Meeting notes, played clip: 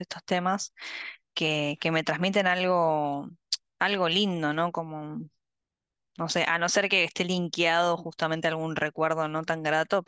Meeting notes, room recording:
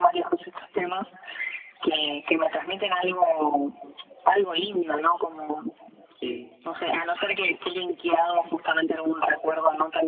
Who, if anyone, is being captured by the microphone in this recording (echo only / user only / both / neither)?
both